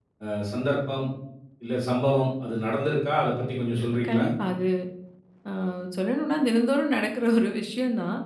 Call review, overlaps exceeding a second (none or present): none